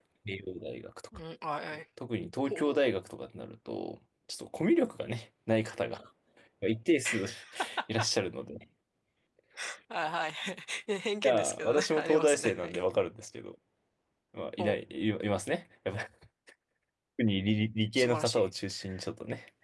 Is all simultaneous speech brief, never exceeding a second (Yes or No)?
No